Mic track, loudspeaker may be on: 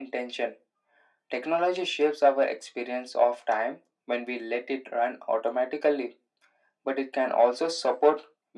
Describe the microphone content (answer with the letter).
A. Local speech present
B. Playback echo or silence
B